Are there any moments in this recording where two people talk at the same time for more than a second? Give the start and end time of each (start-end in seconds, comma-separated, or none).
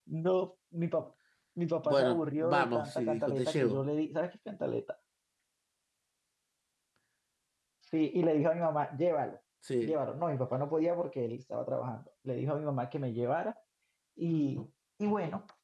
1.8-3.8